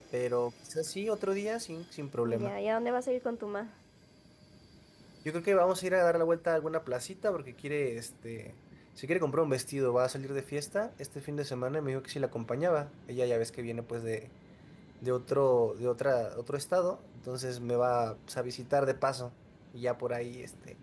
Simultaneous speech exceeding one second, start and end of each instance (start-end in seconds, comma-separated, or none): none